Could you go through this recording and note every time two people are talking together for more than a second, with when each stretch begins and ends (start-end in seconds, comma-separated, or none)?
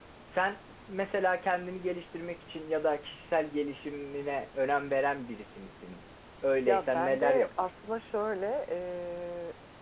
6.7-7.9